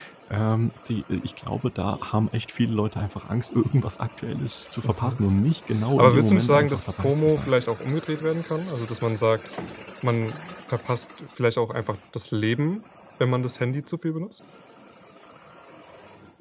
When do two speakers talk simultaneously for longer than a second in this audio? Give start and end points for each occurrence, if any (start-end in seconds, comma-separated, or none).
5.9-7.5